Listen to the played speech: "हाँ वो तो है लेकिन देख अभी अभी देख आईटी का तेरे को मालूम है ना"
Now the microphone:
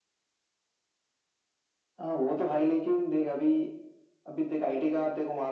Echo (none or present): present